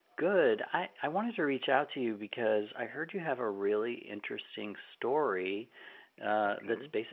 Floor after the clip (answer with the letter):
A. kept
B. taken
A